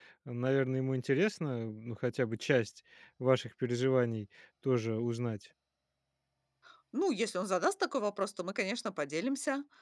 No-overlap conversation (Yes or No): Yes